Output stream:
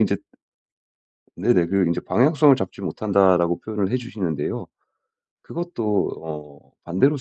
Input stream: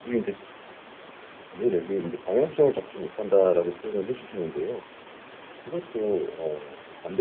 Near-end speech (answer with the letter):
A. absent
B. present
A